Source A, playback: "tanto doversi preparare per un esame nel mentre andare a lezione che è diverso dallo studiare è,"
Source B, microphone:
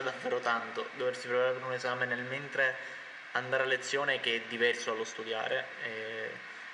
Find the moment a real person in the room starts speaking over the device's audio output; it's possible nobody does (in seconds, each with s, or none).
none